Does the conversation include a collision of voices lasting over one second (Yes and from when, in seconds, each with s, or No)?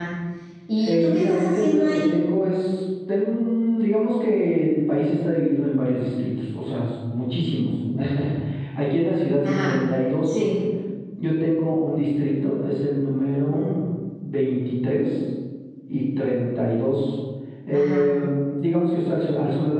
Yes, from 0.8 s